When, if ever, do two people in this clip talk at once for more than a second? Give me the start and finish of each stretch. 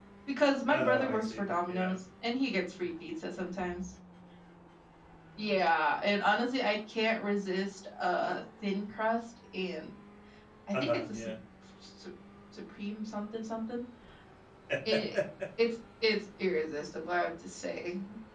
0.7-1.9

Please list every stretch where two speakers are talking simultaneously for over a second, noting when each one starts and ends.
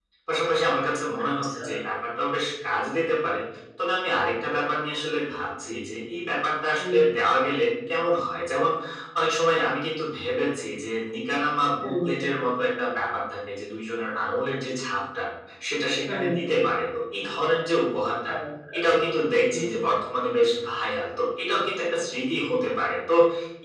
none

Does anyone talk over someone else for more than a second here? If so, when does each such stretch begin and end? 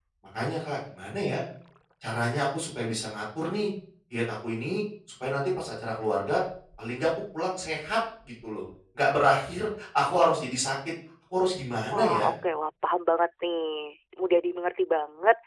none

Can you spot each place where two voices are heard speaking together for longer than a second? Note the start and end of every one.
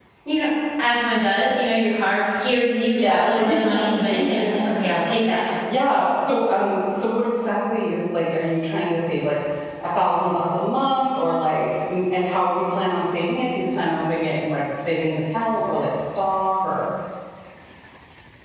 2.9-4.7

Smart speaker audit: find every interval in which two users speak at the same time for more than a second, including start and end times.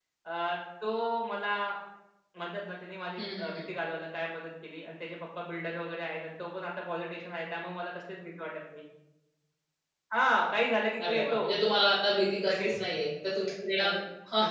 none

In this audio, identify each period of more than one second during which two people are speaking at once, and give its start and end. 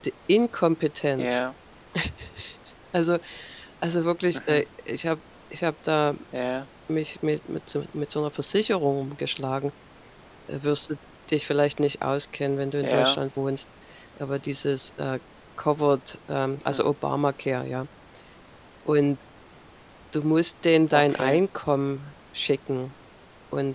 none

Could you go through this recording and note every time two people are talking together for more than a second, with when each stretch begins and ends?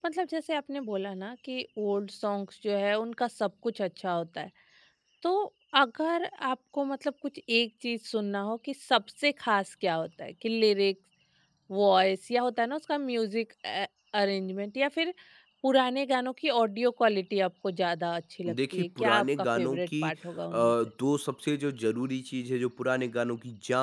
18.5-20.1

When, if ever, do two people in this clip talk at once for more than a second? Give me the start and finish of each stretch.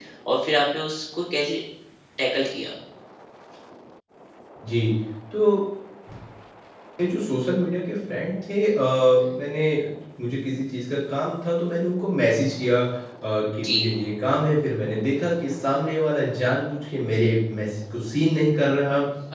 none

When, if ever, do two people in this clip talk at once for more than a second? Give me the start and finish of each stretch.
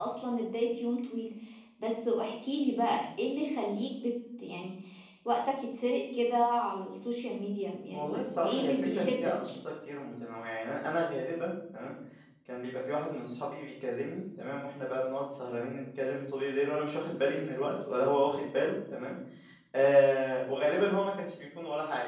7.9-9.3

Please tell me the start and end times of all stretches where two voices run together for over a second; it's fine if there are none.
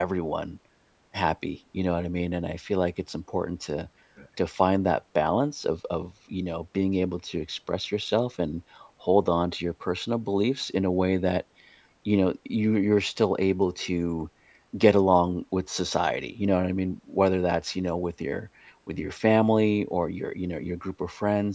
none

